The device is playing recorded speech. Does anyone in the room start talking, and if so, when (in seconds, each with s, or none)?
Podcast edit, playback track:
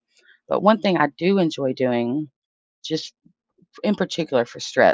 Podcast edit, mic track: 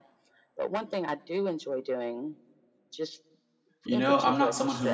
3.8 s